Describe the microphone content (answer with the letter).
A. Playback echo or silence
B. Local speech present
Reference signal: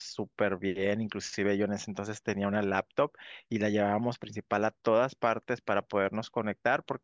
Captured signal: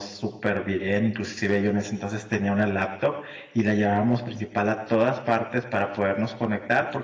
A